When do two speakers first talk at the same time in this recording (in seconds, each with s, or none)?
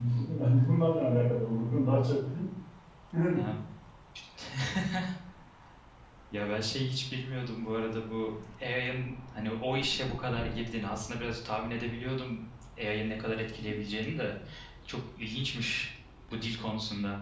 none